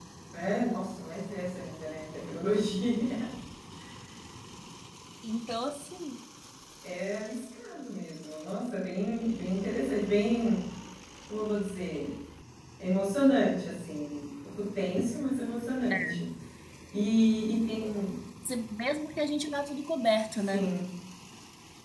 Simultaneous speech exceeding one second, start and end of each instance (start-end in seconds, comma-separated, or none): none